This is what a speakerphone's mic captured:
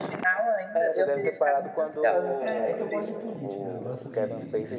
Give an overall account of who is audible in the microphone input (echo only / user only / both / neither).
both